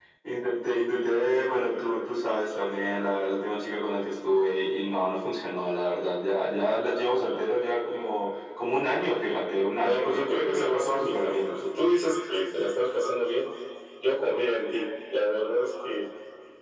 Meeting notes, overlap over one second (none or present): present